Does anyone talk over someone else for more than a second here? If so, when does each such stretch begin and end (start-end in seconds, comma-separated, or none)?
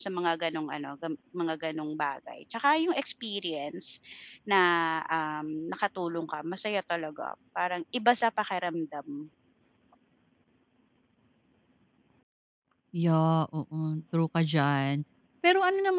none